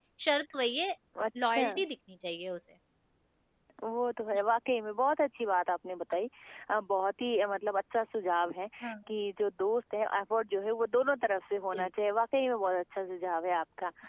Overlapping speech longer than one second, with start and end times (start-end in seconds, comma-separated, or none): none